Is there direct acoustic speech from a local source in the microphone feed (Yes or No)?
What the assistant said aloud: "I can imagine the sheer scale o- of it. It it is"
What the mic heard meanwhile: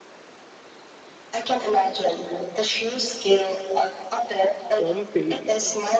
Yes